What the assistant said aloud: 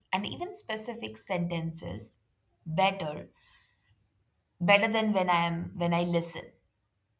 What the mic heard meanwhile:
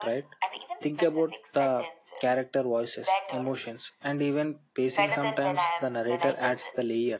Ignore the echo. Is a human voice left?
Yes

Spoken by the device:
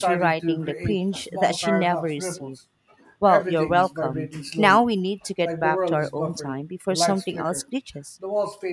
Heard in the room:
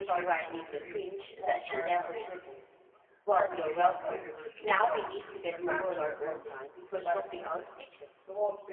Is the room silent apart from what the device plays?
No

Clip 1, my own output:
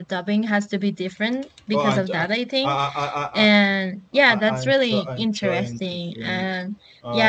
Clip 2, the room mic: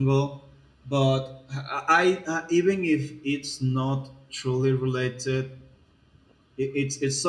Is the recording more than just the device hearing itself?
Yes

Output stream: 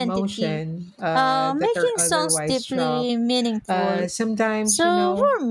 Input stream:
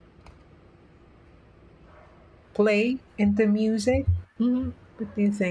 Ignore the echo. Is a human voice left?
Yes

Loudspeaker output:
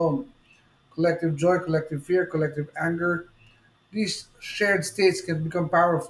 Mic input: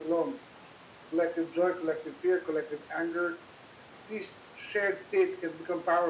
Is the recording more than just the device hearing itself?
No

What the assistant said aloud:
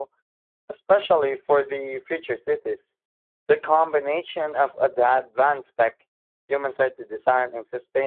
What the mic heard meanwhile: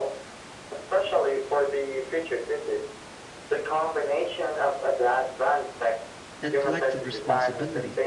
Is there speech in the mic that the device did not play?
Yes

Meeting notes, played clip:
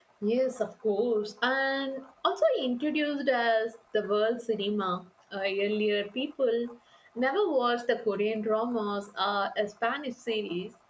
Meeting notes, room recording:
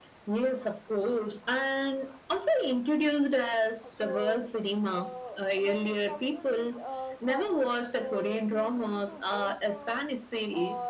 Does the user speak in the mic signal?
Yes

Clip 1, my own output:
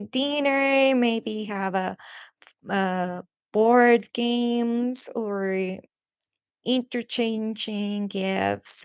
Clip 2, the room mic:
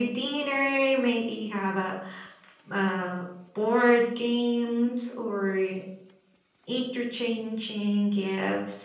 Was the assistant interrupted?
No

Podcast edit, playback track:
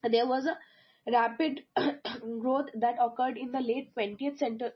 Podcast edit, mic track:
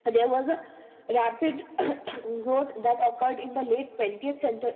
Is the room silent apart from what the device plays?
Yes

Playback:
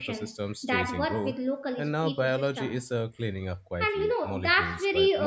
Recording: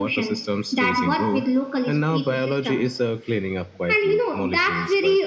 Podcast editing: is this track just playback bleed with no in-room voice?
Yes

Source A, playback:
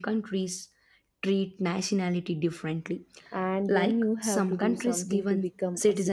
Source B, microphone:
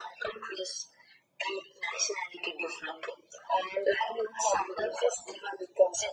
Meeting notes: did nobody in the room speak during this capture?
Yes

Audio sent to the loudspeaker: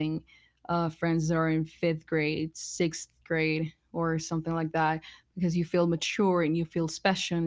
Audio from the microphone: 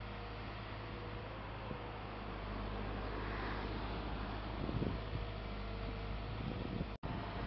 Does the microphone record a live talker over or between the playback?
No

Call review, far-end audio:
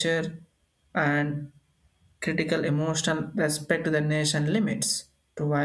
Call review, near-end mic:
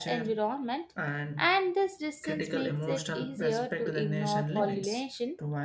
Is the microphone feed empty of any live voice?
No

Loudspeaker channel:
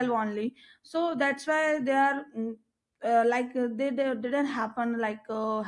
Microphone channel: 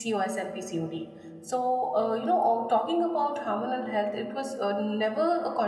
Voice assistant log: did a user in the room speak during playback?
Yes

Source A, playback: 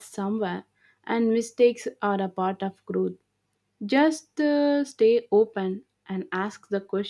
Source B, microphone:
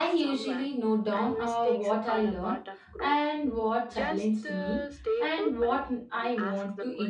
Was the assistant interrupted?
Yes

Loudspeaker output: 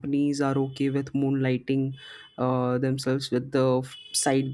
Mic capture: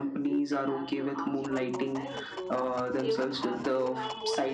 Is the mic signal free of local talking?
No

